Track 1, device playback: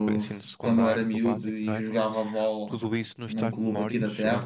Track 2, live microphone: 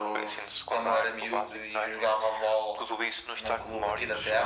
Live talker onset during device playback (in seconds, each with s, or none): none